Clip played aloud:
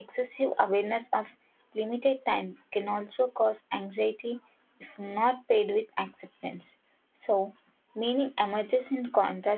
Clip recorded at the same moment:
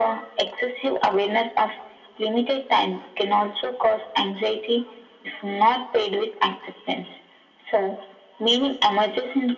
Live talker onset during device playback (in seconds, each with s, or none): none